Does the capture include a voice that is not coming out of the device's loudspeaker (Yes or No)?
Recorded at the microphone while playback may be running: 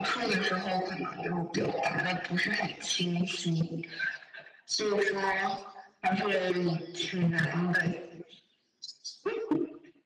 No